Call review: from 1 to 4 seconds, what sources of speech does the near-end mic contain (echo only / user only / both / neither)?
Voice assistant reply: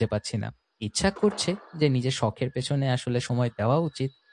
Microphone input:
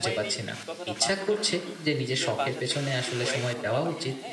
both